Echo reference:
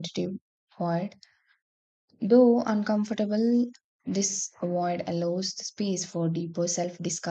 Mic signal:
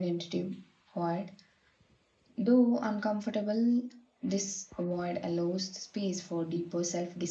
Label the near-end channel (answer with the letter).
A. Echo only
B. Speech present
A